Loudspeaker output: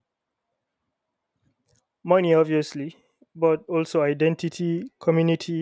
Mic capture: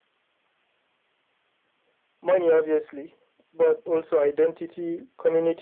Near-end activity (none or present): none